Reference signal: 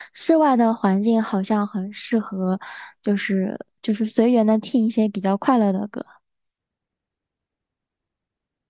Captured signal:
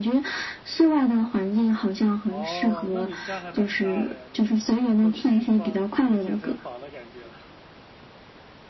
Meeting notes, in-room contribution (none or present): present